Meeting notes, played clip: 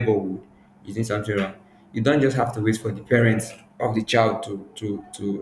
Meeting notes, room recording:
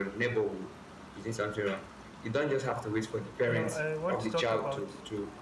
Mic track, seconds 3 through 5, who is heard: both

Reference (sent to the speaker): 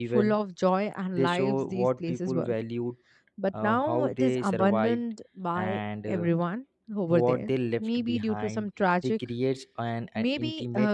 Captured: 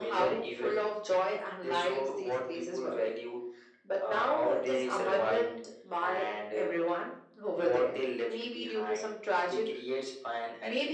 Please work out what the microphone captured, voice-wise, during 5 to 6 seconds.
echo only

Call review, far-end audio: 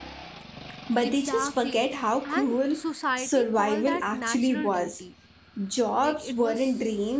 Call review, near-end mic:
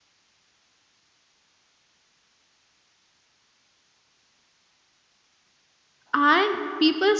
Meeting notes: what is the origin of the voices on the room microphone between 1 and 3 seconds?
neither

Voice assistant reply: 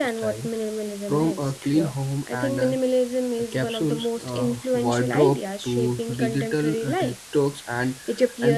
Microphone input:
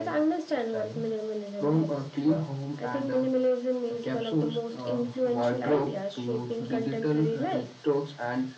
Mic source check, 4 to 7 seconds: echo only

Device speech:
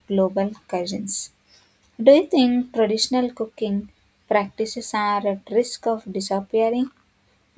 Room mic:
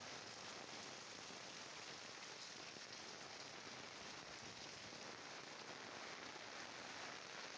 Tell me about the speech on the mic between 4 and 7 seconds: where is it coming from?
neither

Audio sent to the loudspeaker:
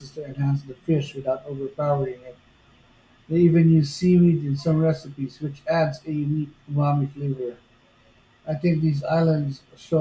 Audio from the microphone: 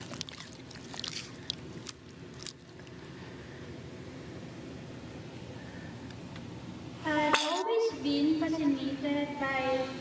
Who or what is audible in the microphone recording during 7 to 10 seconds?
user only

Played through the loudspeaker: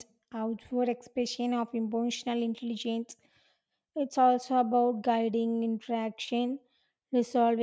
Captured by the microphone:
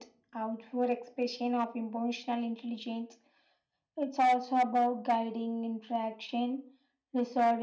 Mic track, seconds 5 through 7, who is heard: echo only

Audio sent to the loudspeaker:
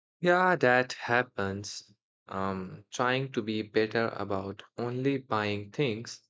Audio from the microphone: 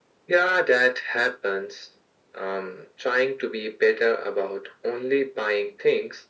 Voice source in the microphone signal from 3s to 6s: echo only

